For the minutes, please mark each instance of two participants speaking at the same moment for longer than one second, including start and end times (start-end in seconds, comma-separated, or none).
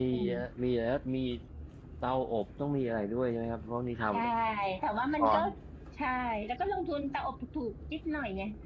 none